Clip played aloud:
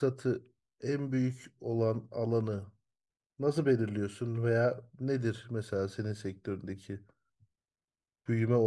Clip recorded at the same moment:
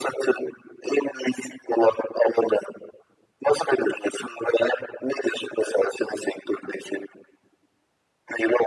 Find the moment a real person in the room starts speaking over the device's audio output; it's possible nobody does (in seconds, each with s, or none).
none